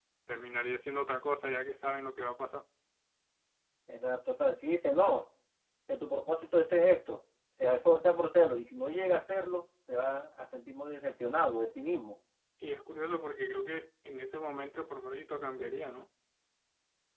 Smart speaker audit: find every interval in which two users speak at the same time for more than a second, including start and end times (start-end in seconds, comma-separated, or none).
none